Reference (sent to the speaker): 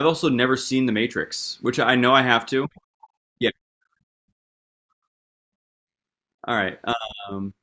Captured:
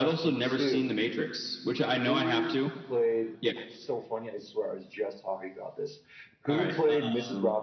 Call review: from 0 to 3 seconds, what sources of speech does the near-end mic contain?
both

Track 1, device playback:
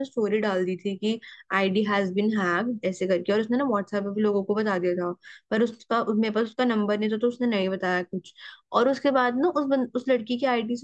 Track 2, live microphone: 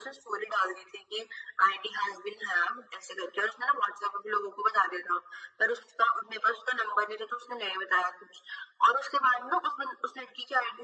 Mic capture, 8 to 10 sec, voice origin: echo only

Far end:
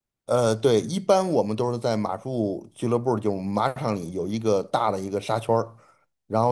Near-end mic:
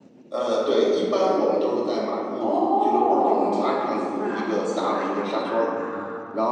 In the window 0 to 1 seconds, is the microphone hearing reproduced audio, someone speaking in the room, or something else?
echo only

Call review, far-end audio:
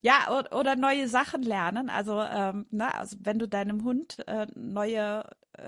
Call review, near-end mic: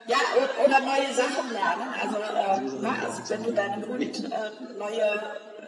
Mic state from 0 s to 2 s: echo only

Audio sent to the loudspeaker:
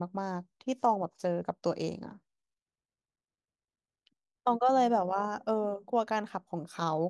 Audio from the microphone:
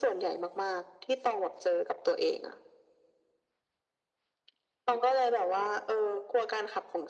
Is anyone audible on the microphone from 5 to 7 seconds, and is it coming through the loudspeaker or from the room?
echo only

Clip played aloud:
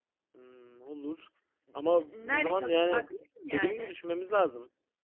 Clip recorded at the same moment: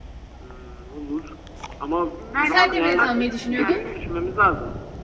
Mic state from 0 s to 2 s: echo only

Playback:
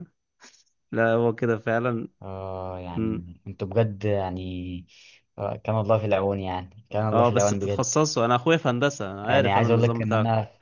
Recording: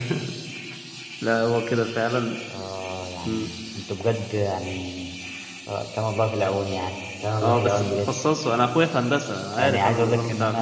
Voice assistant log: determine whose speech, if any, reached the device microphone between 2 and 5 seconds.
echo only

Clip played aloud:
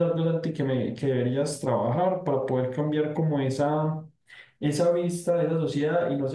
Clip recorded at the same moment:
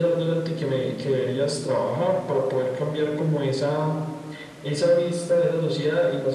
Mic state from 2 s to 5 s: echo only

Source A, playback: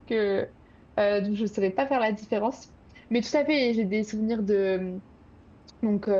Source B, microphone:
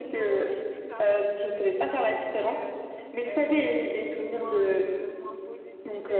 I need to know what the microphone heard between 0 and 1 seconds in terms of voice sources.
both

